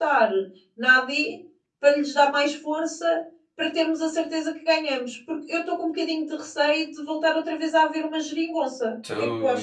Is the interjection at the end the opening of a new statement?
Yes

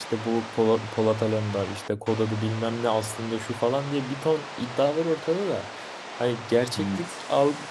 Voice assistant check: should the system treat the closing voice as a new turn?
No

